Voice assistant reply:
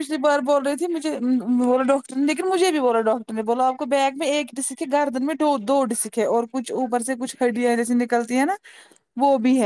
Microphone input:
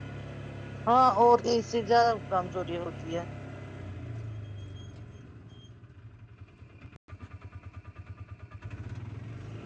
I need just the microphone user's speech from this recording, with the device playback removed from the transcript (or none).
ہاں اور اس سے زیادہ کمزوری ہوتی ہے